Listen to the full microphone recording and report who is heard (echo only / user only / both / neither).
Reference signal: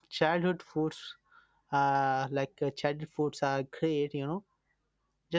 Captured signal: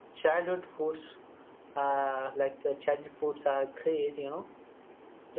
echo only